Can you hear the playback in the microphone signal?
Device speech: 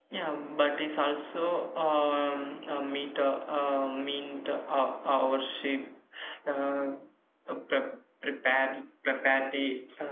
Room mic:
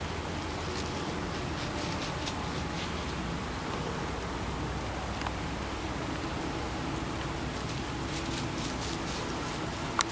No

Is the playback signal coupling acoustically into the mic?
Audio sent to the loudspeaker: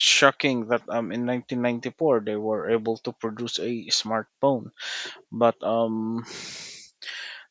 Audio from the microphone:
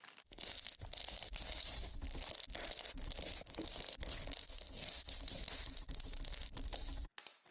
No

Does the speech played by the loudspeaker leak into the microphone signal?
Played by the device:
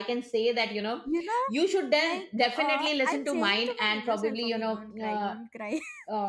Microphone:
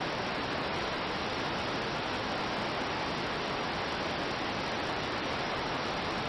No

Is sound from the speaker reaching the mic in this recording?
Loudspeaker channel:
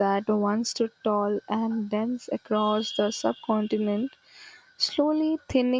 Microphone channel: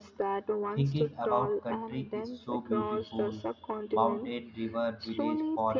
Yes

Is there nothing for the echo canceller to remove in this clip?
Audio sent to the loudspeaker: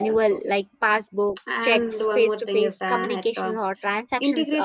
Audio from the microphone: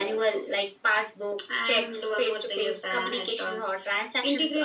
No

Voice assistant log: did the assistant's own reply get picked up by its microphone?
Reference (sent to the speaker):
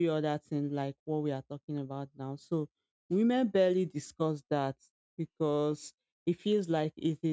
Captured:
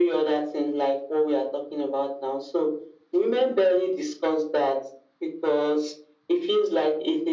Yes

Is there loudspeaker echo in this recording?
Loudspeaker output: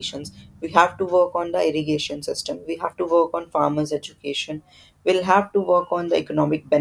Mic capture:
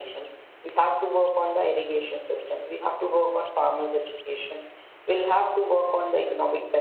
Yes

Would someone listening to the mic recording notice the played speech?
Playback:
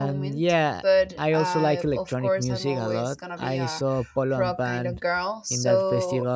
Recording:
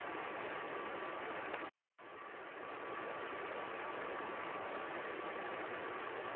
No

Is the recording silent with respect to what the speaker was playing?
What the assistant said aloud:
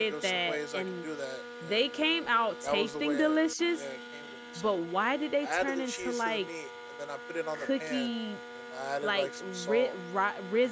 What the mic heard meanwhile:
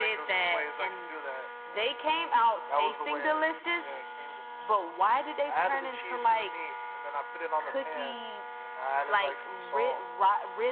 No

